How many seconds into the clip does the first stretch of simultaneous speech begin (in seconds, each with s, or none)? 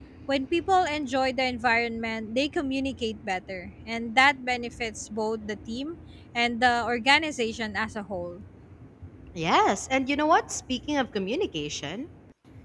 none